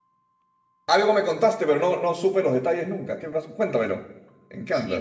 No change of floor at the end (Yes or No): No